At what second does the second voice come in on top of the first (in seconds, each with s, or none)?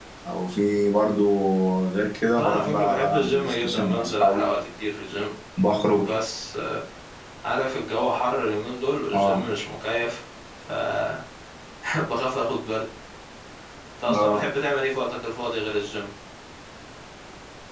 2.4 s